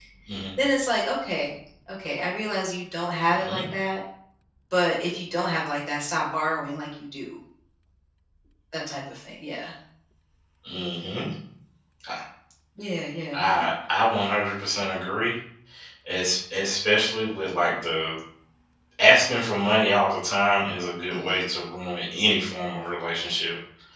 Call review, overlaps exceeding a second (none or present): none